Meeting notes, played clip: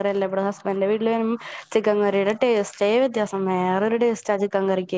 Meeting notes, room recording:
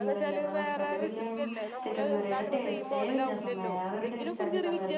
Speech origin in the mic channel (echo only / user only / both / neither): both